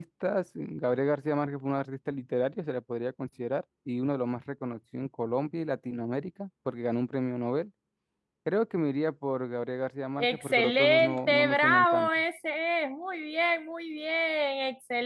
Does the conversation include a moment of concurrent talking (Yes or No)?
Yes